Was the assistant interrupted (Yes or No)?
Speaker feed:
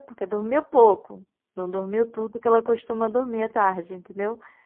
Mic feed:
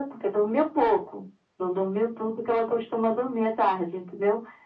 No